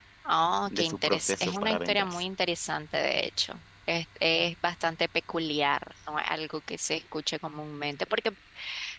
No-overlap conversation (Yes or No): No